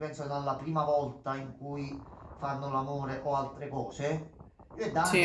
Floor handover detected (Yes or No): No